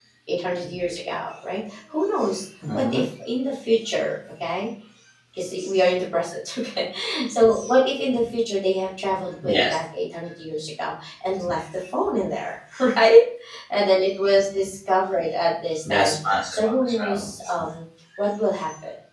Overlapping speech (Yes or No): Yes